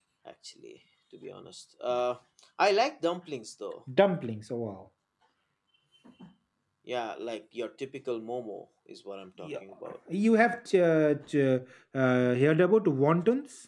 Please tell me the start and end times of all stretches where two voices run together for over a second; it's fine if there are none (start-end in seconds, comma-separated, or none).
none